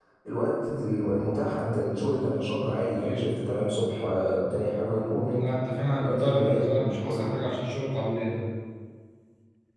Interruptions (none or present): present